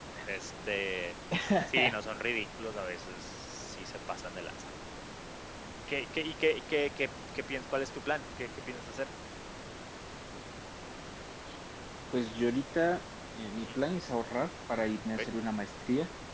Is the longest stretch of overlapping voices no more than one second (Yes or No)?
Yes